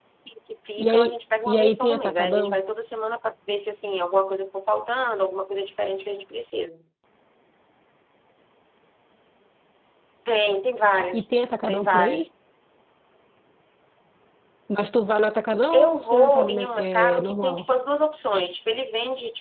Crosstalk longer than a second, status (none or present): present